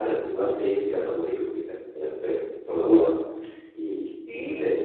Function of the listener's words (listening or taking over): listening